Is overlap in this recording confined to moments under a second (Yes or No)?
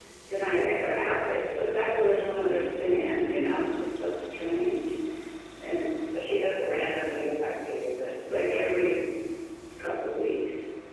Yes